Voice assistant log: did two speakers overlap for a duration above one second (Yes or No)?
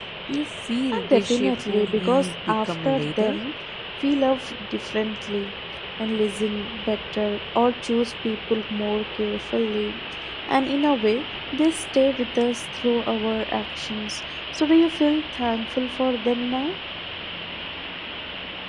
Yes